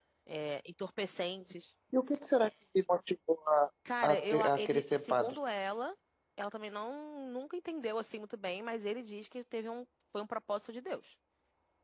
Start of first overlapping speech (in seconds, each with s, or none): 4.1 s